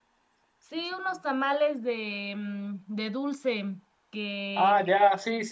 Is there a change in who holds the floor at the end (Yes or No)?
Yes